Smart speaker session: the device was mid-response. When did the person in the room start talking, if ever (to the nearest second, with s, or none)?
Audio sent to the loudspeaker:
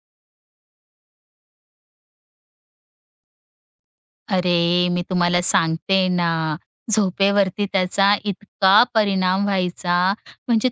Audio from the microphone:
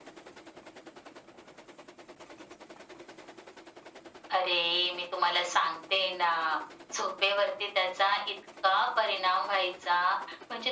none